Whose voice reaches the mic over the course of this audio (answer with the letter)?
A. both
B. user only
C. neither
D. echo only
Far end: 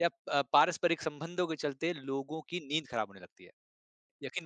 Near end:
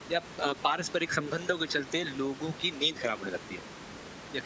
D